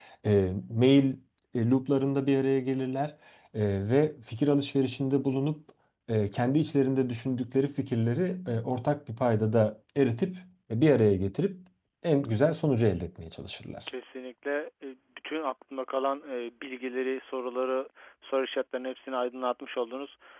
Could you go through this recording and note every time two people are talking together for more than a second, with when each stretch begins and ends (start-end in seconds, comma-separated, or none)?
none